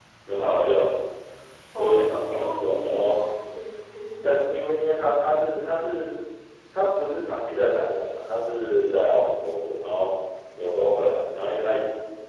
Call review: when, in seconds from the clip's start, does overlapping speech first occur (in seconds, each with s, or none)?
1.8 s